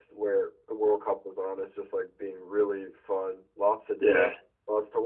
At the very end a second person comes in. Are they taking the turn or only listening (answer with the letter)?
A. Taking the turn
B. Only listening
B